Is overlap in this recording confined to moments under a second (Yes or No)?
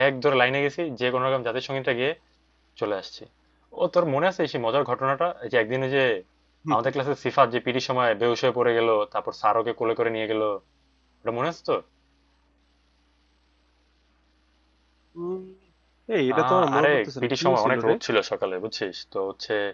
No